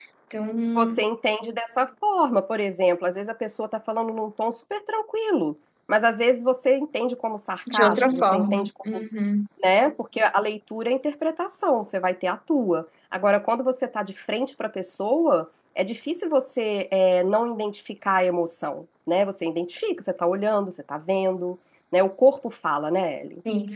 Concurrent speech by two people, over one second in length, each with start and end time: 7.7-9.0

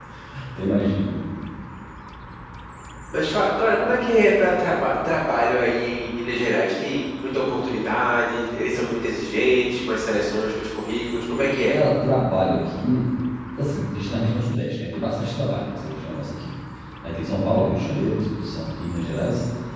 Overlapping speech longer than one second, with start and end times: none

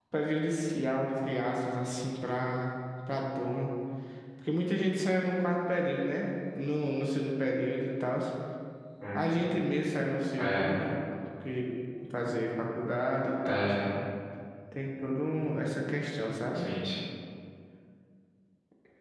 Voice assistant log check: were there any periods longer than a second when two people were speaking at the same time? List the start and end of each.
none

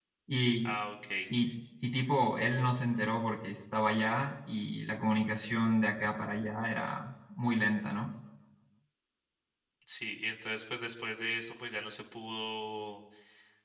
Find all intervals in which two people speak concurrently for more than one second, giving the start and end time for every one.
none

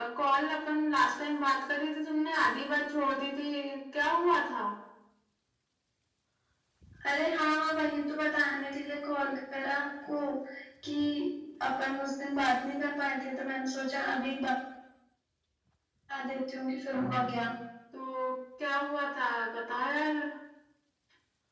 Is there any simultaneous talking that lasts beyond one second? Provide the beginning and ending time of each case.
none

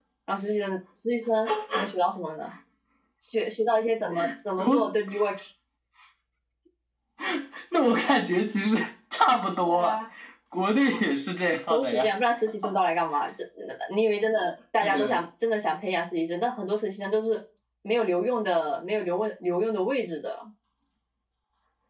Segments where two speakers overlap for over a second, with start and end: none

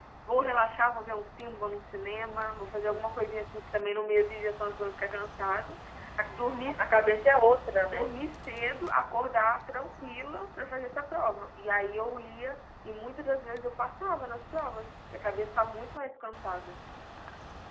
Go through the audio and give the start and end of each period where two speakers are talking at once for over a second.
none

